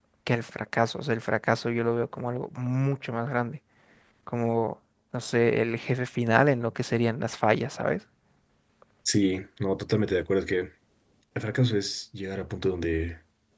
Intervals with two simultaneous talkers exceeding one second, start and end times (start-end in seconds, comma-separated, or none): none